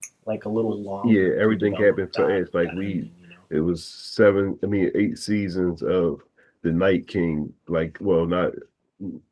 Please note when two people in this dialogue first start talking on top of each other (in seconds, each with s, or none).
1.0 s